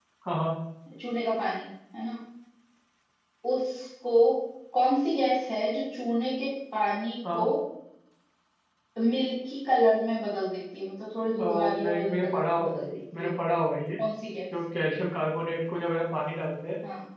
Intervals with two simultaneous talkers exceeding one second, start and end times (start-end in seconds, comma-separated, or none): 11.4-13.3